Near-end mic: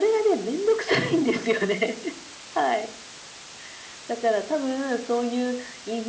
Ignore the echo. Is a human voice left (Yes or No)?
No